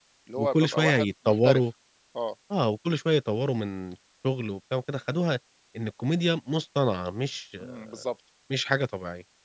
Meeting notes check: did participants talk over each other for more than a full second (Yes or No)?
Yes